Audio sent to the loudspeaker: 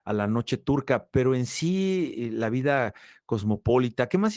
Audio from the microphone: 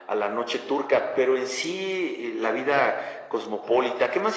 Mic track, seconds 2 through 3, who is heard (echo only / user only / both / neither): echo only